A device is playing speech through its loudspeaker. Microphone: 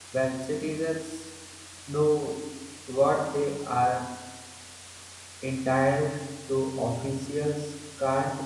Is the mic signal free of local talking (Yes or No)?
No